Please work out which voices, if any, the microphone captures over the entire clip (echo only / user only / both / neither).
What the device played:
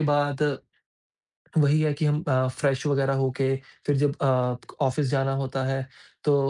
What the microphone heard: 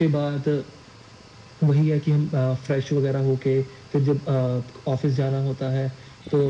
echo only